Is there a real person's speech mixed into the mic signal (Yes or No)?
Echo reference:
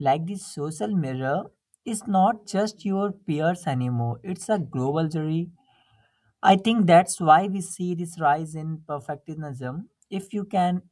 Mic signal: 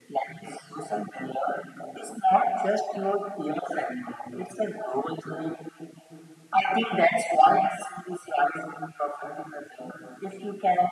No